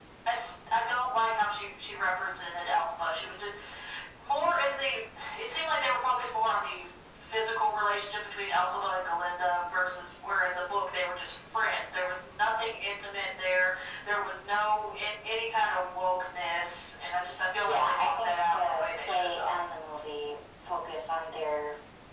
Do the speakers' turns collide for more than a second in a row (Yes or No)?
Yes